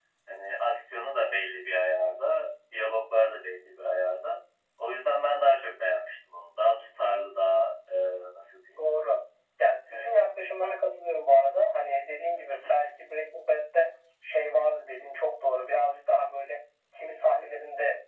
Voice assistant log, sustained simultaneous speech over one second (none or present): none